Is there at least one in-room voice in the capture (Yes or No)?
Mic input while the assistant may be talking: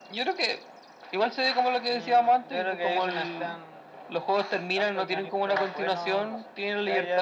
No